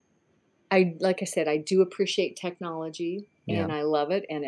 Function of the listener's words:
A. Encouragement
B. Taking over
A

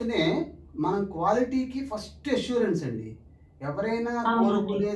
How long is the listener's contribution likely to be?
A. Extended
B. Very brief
B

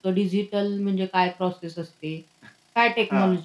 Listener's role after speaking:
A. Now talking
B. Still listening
B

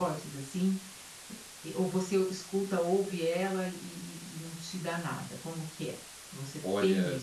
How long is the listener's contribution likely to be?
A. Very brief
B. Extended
B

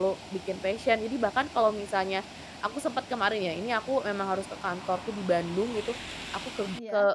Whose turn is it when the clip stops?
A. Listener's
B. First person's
B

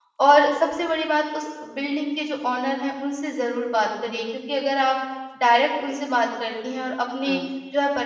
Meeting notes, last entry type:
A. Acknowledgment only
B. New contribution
A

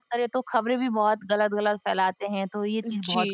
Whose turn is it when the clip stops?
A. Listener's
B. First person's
A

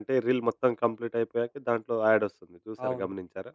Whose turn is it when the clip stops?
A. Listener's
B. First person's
A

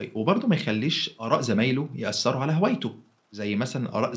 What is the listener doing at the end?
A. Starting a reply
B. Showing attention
A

